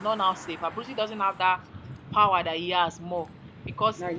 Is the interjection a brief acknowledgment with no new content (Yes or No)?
Yes